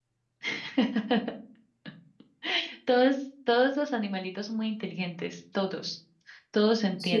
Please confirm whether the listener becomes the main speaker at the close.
No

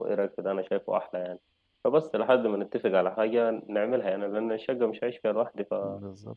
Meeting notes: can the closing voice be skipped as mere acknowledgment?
No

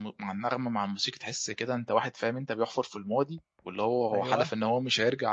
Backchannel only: Yes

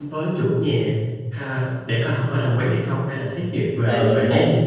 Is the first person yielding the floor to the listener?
Yes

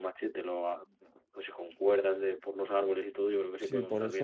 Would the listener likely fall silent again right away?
No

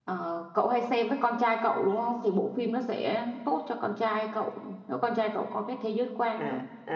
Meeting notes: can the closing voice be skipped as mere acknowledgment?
No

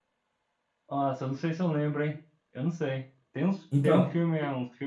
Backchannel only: Yes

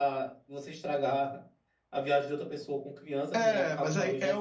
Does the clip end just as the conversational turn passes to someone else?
Yes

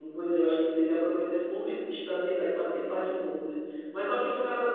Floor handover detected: No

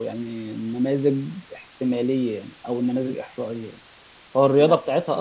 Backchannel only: Yes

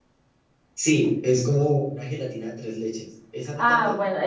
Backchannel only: No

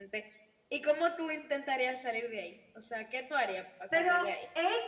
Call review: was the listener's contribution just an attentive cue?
No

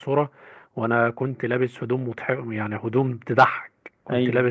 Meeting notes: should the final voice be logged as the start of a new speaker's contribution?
No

